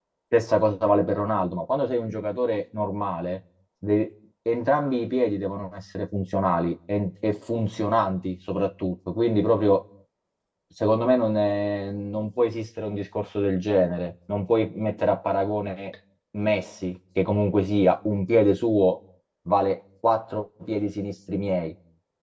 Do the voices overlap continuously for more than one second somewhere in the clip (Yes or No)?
No